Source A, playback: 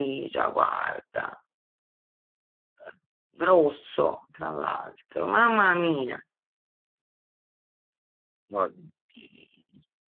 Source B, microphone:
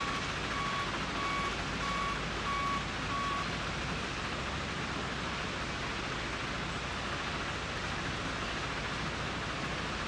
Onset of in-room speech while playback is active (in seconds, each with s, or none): none